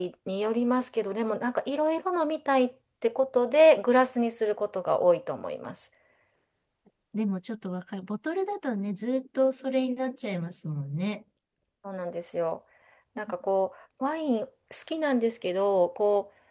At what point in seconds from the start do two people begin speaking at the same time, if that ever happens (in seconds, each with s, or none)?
none